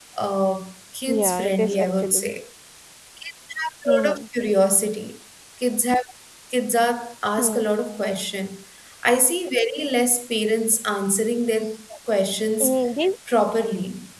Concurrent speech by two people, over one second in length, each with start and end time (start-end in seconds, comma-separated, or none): 1.1-2.3